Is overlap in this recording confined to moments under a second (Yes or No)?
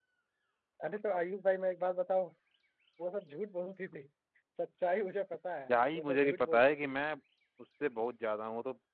No